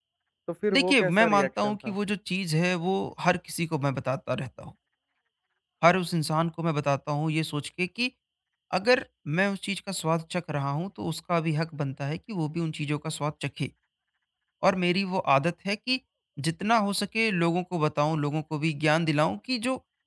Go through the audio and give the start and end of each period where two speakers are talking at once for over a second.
0.7-1.9

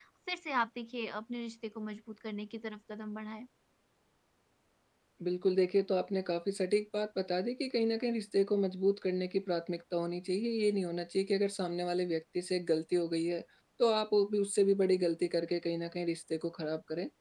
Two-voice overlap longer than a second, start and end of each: none

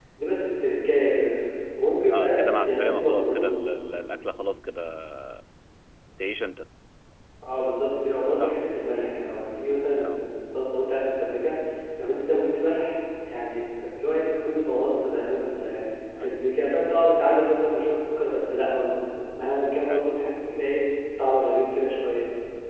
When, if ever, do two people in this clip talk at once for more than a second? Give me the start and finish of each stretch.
2.1-3.5

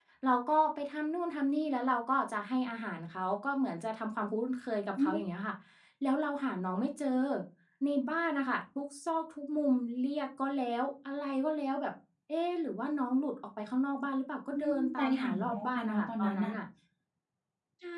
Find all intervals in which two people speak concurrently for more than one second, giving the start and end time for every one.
14.5-16.6

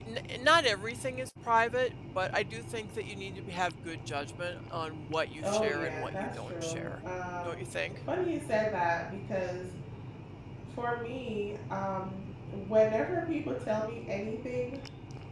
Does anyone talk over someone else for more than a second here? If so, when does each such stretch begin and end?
5.4-6.9

